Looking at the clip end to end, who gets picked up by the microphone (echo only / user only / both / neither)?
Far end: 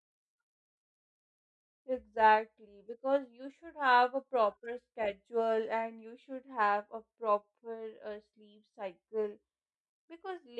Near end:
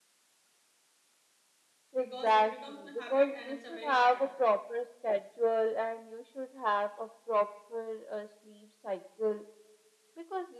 both